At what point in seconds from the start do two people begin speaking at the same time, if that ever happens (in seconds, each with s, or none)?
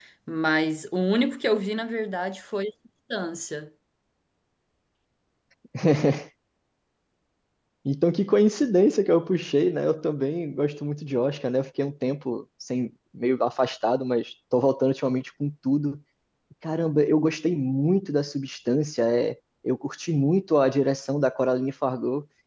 none